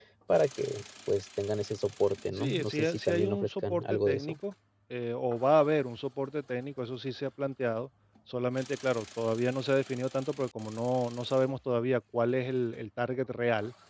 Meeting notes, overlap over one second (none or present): present